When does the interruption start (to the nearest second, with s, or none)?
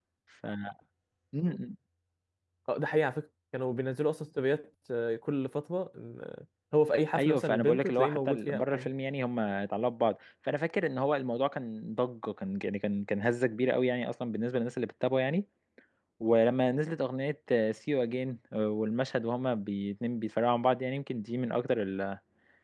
7 s